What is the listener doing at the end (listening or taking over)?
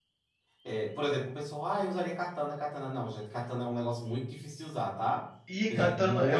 taking over